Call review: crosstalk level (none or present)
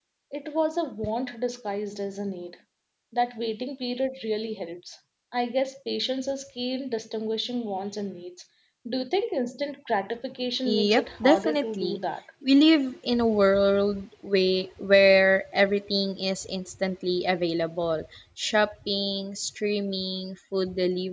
present